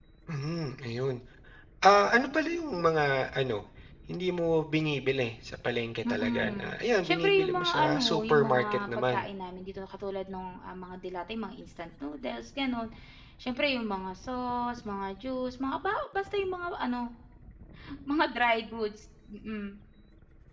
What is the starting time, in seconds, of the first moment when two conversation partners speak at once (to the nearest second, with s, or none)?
6 s